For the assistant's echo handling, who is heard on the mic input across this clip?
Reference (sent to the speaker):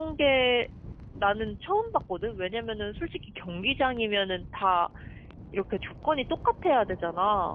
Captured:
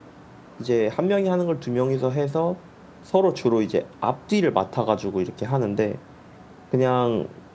user only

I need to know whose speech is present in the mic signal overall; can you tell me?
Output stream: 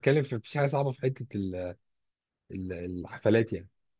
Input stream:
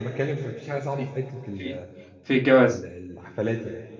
both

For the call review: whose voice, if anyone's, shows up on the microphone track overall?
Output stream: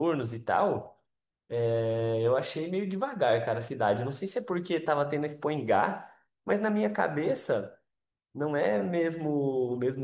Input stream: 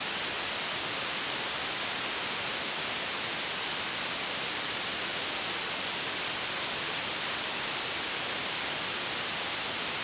neither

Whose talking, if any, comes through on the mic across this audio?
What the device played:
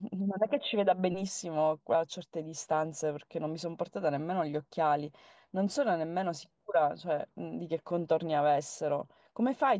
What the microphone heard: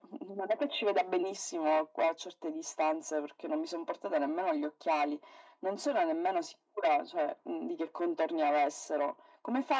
echo only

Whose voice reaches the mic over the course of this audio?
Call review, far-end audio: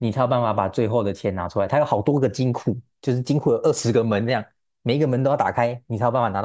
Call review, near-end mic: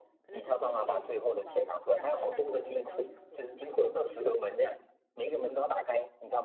both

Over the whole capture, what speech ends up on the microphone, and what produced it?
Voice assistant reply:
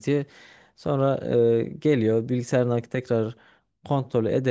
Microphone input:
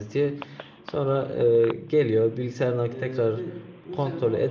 both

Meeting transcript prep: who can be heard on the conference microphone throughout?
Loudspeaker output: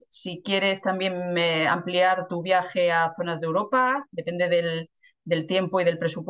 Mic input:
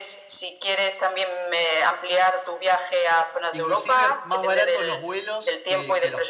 both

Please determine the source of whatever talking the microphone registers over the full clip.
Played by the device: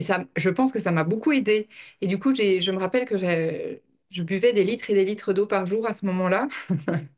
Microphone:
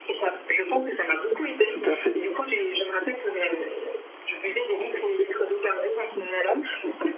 both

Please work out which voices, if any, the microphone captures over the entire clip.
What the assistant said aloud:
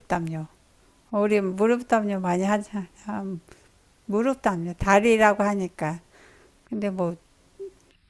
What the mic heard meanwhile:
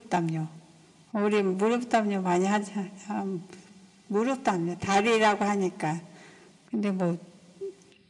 echo only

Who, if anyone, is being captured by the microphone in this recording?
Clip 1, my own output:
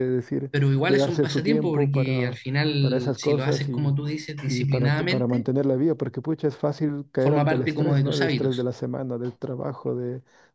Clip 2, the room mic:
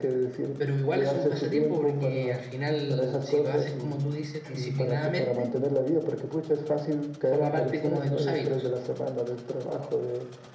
echo only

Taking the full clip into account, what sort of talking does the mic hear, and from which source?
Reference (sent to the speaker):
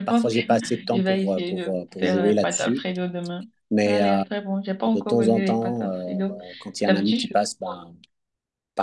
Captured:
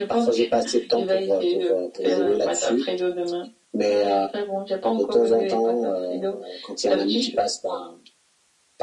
echo only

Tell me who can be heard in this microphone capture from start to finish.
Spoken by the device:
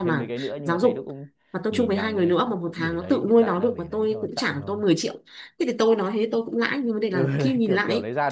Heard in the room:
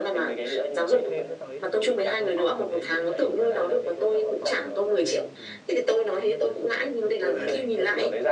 both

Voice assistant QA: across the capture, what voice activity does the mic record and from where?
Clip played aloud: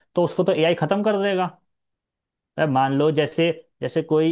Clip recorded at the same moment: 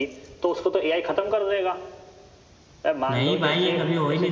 both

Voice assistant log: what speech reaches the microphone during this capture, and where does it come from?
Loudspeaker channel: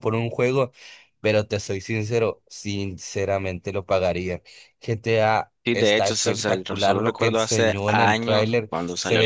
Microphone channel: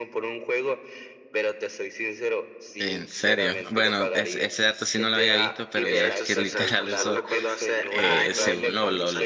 both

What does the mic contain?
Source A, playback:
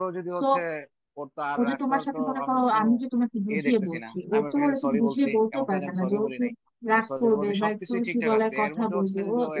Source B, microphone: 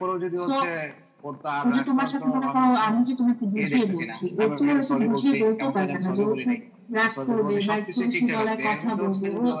echo only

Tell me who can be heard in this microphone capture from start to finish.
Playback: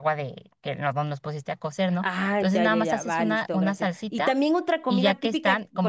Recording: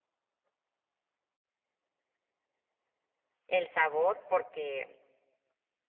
user only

